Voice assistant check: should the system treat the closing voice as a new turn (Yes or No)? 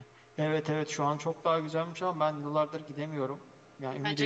No